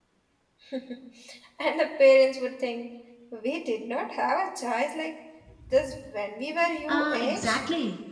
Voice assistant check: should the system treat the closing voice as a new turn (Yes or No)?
Yes